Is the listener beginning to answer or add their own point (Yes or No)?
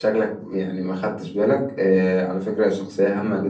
No